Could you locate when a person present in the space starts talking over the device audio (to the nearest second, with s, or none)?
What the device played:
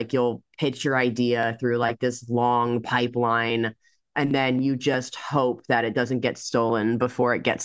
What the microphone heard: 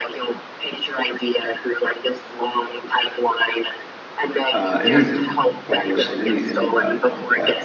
5 s